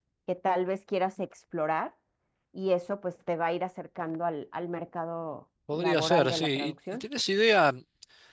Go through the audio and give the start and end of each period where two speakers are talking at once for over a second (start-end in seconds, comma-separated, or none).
5.7-7.0